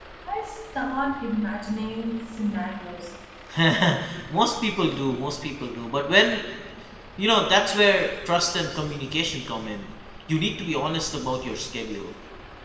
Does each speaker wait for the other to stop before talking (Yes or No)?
Yes